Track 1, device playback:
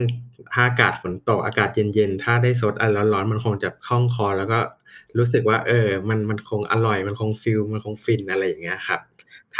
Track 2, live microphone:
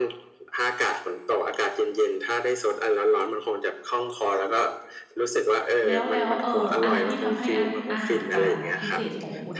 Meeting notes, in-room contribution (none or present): present